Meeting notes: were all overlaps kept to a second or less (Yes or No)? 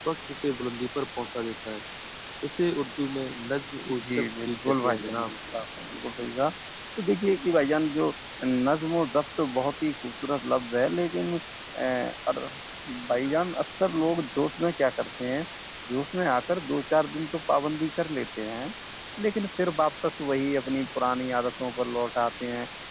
No